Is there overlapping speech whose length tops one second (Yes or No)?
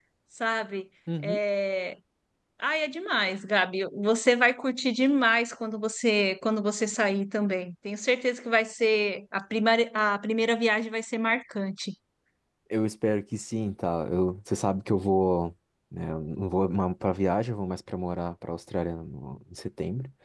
No